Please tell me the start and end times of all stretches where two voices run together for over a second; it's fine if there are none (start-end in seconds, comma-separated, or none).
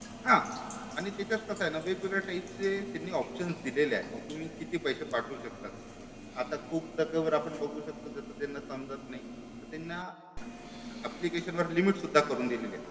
none